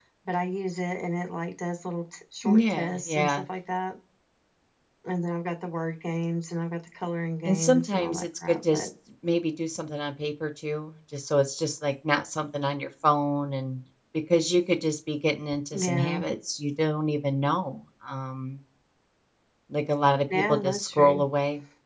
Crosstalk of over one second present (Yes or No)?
Yes